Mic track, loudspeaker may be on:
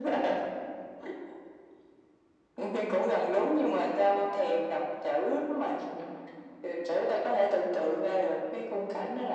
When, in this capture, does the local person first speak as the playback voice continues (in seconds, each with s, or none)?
none